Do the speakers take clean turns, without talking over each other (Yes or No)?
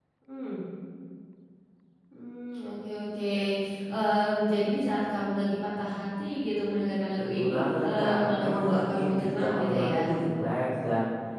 No